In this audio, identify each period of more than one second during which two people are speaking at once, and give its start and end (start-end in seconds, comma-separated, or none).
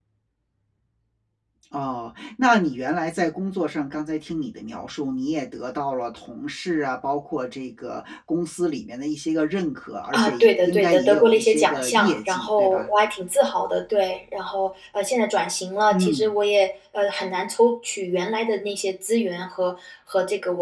10.1-12.9